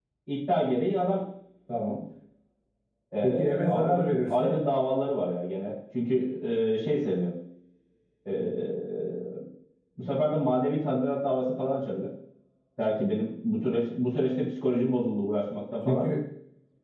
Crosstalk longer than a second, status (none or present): present